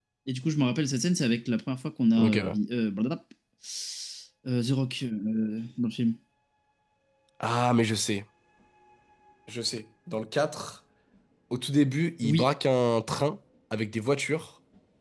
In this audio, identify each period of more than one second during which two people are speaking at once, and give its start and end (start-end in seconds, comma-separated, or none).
none